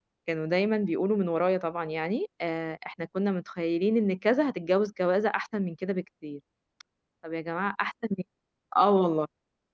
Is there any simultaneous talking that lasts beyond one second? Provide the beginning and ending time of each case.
none

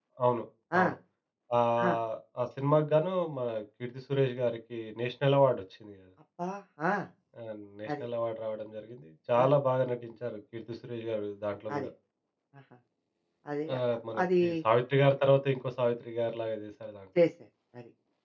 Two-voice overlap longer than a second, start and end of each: none

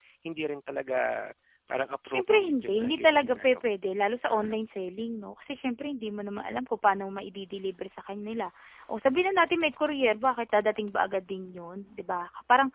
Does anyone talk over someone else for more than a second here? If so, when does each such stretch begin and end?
2.1-3.6

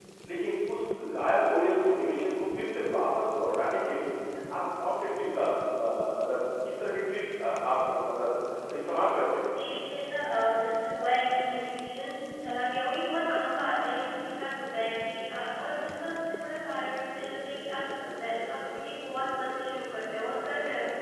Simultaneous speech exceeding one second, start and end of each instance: none

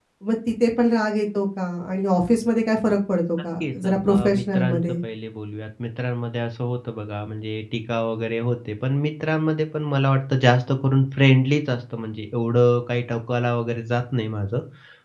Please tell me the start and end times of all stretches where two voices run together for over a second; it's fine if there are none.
3.6-4.9

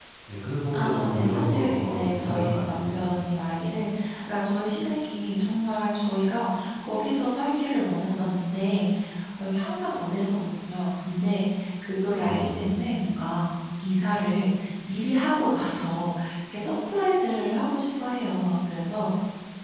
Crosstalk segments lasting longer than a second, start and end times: 0.7-3.1

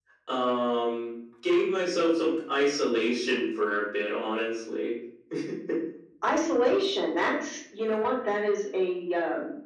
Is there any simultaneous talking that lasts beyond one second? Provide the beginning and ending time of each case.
none

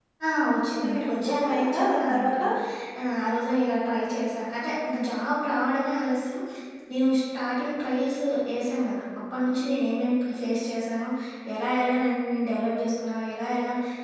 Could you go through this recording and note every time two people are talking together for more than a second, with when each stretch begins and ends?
0.7-2.4

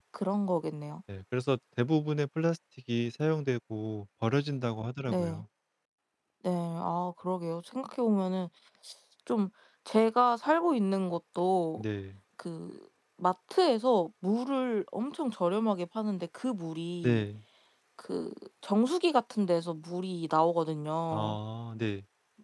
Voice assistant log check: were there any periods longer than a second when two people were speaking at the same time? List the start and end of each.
none

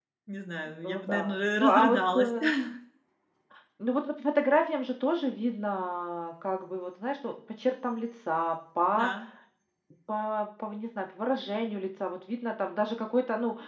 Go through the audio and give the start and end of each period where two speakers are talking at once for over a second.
0.8-2.3

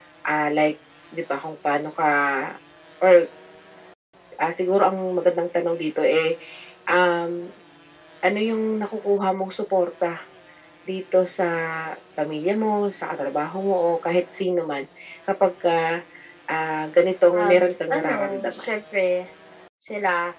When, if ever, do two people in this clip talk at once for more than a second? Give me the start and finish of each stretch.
17.3-18.7

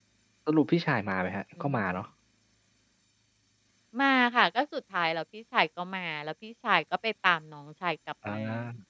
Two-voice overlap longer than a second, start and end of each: none

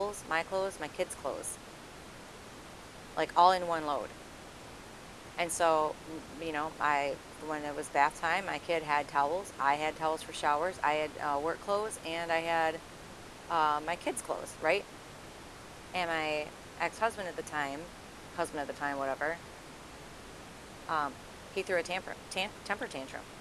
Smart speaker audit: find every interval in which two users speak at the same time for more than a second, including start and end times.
none

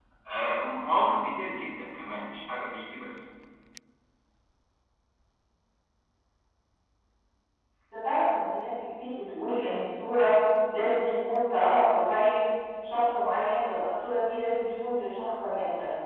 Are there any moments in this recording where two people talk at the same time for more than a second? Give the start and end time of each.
none

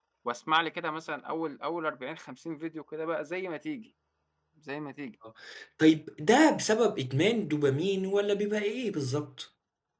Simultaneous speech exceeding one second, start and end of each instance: none

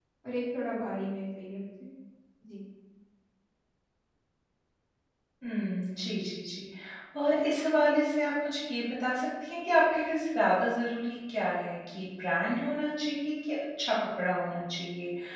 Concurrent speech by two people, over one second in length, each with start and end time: none

